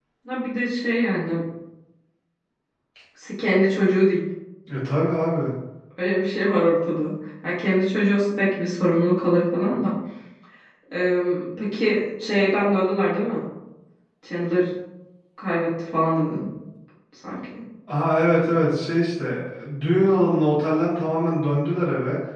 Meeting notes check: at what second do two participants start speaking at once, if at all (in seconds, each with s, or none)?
none